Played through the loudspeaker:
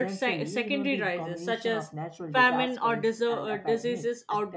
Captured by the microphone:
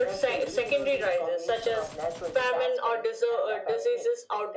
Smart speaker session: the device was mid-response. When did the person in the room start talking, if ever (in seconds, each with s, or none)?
none